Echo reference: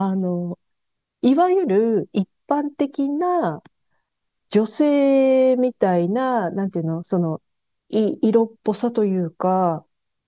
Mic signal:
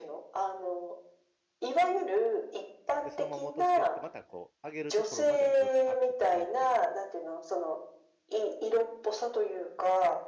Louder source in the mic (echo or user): echo